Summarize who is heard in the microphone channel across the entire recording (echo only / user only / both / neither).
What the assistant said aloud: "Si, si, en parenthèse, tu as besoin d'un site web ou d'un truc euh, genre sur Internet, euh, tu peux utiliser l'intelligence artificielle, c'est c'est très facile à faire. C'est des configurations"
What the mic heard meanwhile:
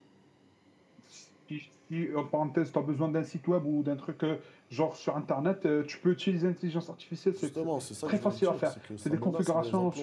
both